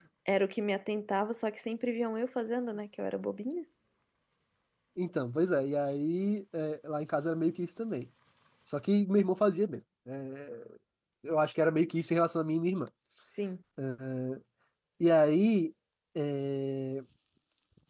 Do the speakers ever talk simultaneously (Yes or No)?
No